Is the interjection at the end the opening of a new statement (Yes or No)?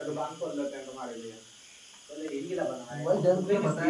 Yes